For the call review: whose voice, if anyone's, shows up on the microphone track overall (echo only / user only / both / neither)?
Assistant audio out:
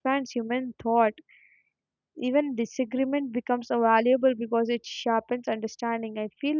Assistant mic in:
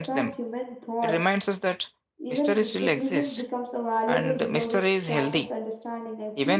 both